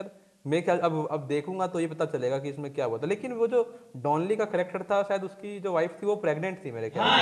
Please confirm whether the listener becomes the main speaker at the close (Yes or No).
Yes